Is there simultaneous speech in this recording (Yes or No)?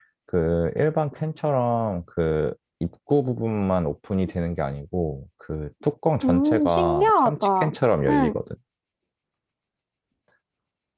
Yes